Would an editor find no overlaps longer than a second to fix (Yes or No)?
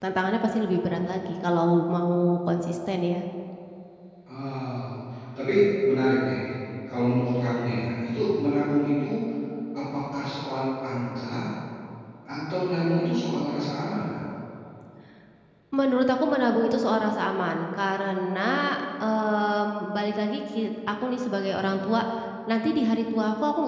Yes